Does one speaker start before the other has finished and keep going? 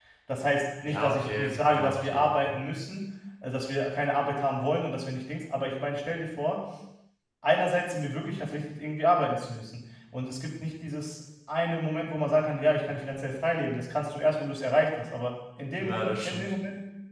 Yes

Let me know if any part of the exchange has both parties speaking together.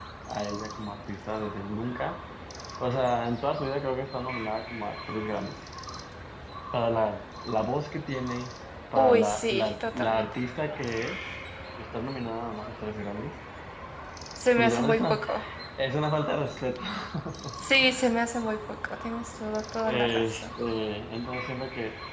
Yes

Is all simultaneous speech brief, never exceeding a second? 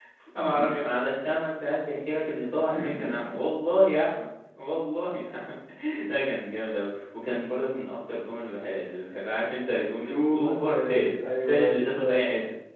No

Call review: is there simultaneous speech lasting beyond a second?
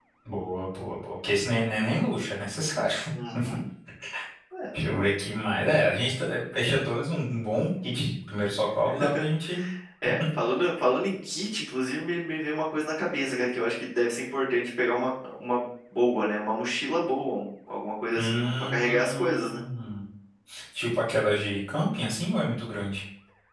Yes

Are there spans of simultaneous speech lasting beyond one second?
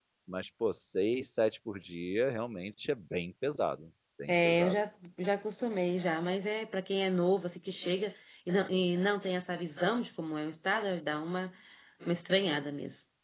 No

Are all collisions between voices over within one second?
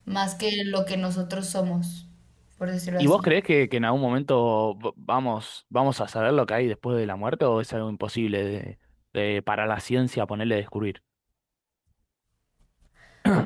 Yes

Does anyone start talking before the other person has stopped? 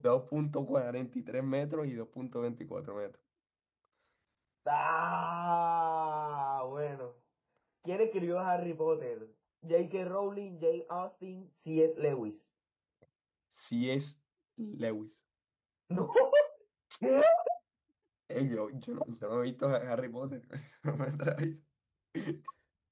No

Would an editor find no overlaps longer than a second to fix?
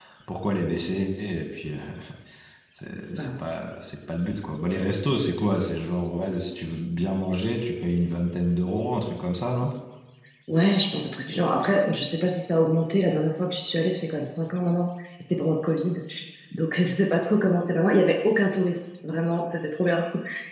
Yes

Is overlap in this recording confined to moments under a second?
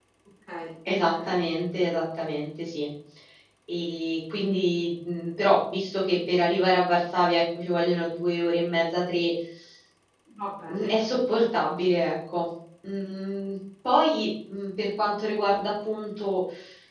Yes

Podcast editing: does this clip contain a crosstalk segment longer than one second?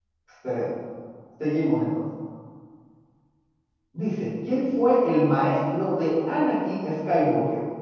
No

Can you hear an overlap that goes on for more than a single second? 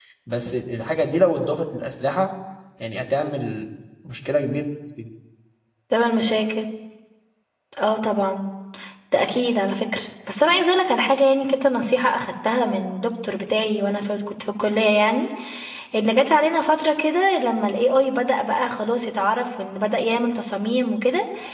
No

